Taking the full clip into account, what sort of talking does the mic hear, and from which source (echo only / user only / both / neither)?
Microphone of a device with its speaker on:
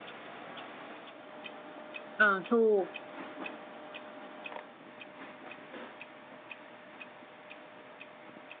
user only